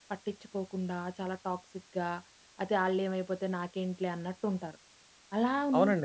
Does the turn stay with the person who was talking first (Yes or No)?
No